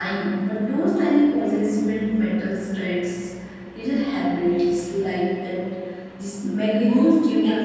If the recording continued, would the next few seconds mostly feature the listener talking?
Yes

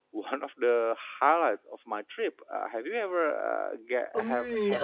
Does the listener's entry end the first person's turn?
Yes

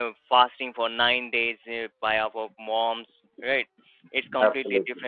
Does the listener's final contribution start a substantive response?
No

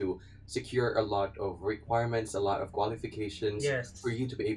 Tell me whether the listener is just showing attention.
Yes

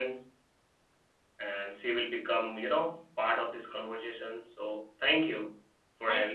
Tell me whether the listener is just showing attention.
No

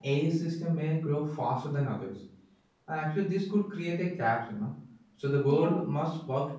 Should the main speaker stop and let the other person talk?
No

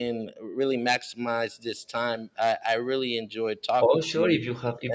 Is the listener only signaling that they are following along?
No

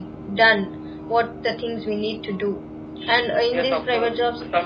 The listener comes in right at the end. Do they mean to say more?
Yes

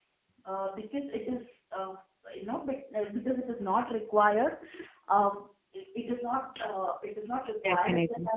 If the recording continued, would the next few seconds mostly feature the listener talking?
No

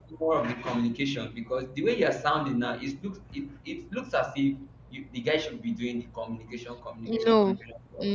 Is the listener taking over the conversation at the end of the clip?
Yes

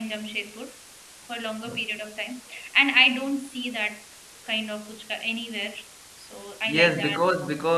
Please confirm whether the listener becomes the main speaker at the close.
Yes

